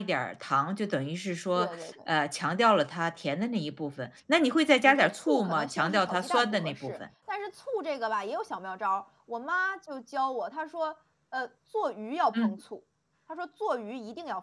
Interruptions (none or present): present